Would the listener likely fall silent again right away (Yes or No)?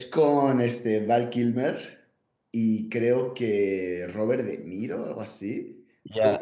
No